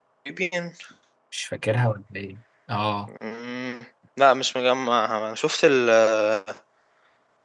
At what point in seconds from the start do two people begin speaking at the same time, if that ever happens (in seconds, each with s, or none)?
none